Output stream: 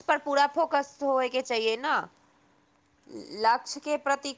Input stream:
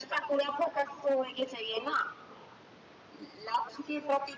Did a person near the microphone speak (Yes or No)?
No